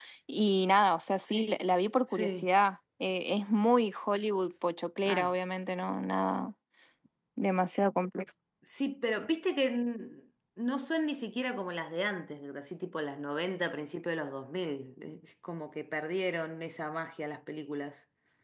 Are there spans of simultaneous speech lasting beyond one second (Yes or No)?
No